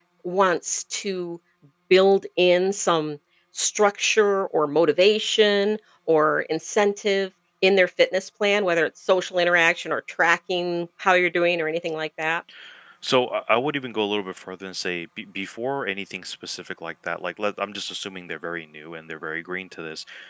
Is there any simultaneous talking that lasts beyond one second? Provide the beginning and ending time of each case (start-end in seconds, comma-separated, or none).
none